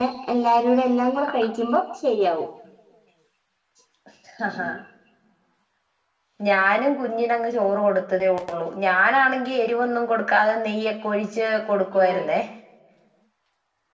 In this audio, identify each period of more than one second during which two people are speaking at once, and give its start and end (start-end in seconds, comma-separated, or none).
none